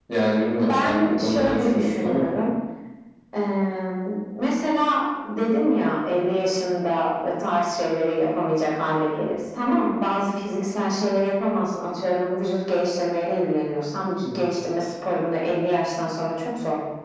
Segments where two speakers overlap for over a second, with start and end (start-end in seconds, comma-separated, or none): 0.7-2.3